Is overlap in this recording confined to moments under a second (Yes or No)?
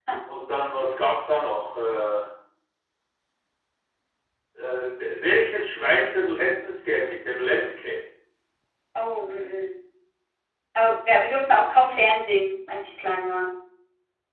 Yes